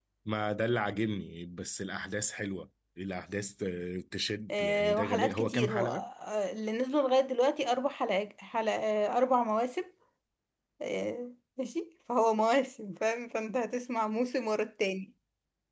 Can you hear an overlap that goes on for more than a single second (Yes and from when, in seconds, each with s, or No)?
Yes, from 4.5 s